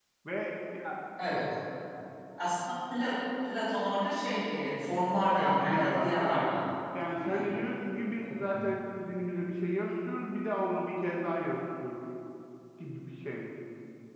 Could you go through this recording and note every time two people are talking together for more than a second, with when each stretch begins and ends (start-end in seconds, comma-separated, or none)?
5.3-6.5